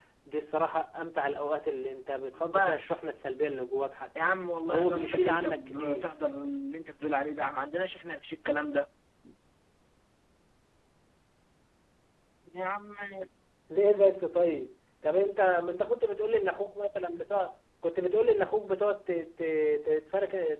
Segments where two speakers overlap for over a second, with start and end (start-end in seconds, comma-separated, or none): 4.7-6.1